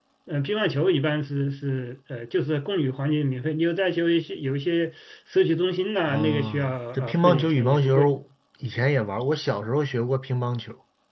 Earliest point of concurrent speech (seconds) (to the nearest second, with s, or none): 6 s